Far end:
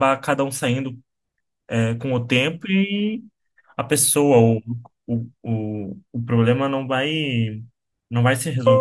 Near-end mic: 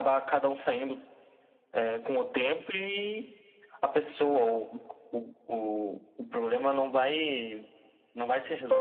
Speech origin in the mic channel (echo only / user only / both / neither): echo only